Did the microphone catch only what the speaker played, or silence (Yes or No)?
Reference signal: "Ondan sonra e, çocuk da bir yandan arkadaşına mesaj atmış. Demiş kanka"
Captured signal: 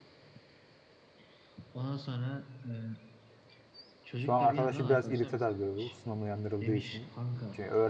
No